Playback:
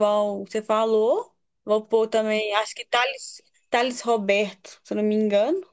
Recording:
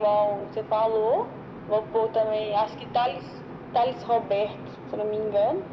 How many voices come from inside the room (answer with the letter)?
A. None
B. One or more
A